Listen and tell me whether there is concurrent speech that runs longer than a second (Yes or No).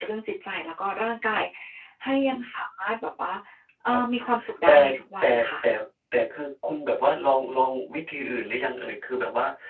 No